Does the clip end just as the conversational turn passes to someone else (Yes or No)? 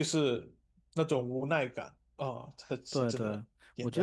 Yes